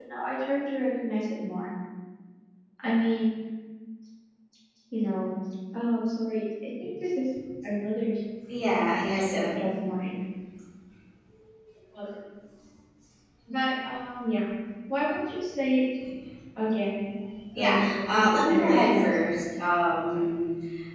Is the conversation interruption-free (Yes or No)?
No